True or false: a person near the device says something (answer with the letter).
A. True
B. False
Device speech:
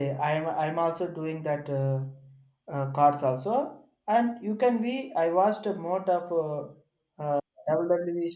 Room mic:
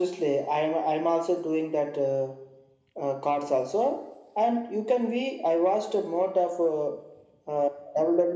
B